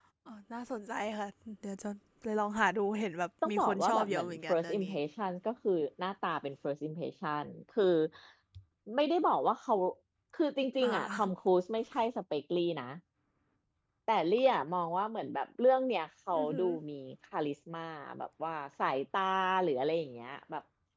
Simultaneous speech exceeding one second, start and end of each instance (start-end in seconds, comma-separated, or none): 3.5-4.9